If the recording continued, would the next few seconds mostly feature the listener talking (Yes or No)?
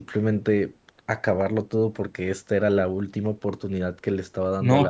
Yes